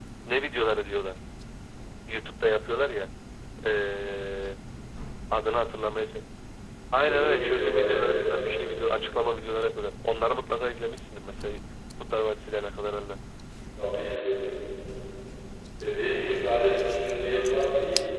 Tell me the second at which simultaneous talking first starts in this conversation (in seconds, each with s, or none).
7.0 s